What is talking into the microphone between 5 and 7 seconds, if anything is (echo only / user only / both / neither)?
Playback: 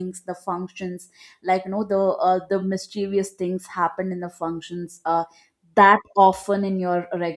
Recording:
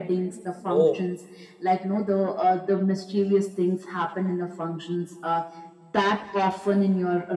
echo only